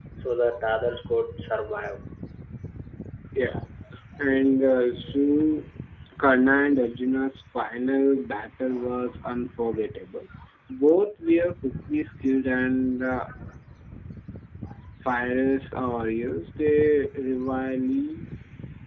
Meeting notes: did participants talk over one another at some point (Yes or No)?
No